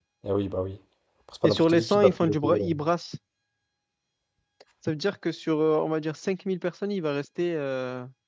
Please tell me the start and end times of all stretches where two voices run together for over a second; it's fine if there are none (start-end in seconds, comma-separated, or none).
1.4-2.7